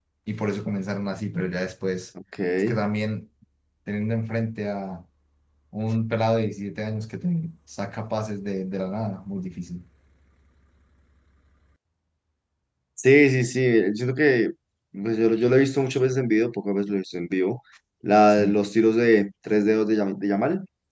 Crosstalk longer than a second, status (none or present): none